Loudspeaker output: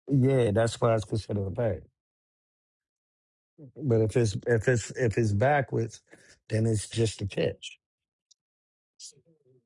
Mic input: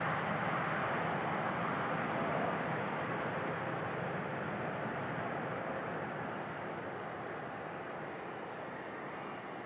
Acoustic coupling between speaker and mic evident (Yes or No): No